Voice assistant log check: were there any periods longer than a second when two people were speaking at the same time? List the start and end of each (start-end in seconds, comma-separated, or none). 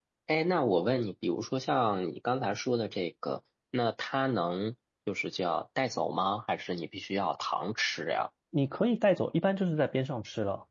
none